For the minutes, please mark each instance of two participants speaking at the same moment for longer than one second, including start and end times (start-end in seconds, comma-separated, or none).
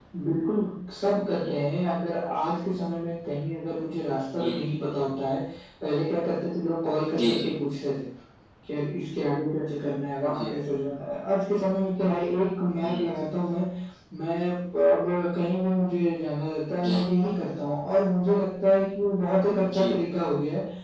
none